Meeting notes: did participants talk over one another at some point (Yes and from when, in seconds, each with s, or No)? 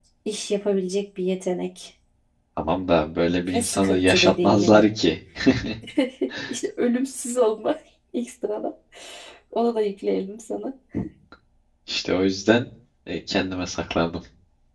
Yes, from 3.5 s